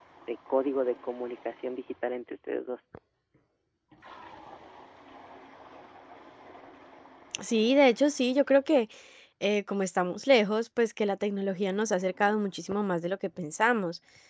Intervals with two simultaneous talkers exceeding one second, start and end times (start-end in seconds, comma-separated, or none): none